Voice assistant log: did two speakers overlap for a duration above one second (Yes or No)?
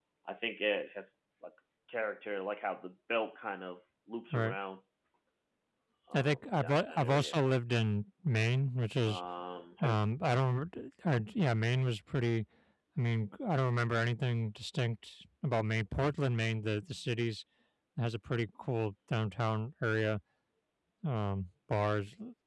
Yes